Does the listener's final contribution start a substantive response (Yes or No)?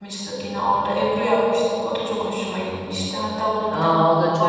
Yes